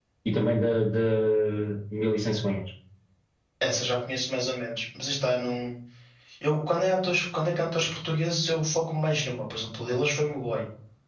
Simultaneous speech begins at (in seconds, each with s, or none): none